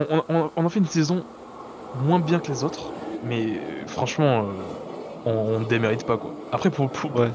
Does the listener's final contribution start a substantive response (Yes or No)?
No